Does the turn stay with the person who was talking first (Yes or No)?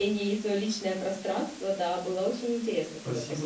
No